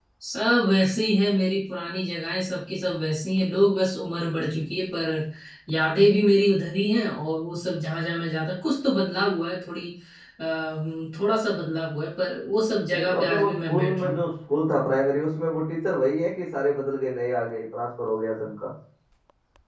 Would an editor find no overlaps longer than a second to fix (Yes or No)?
No